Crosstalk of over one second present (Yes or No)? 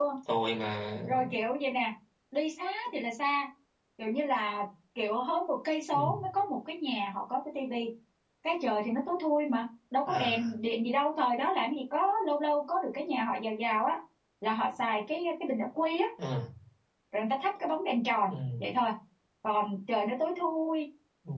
No